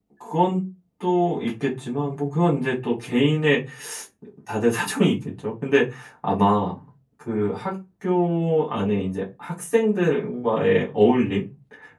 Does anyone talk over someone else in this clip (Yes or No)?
No